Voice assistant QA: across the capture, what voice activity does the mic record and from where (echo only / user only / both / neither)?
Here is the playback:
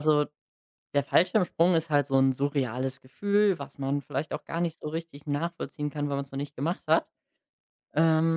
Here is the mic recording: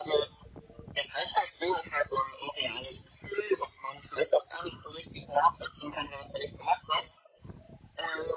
echo only